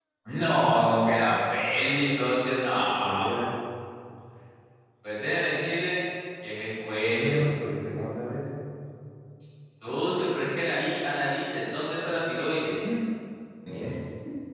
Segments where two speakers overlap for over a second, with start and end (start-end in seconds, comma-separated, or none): none